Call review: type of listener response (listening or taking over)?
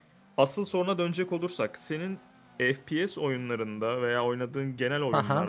listening